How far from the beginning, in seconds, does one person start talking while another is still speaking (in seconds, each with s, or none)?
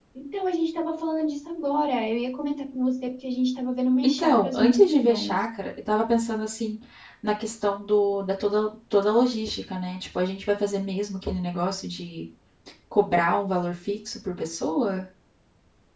4.0 s